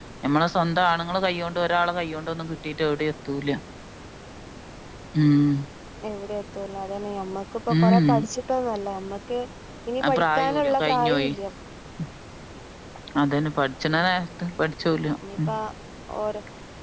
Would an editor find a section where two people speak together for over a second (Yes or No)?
Yes